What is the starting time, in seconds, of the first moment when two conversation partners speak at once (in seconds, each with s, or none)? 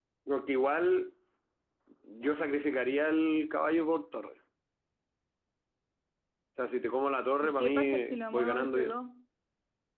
7.4 s